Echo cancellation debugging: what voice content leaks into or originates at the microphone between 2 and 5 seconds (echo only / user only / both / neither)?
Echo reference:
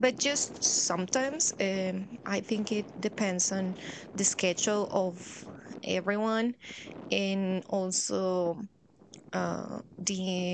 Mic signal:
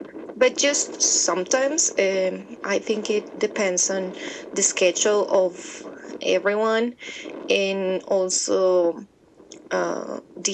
echo only